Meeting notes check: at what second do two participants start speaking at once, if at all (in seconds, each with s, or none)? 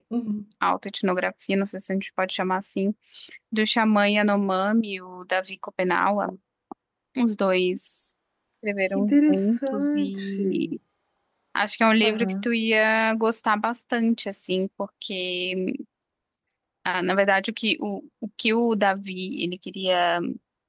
8.9 s